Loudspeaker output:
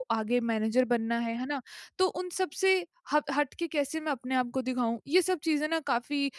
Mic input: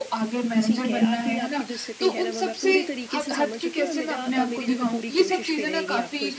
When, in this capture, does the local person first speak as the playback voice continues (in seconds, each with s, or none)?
0.6 s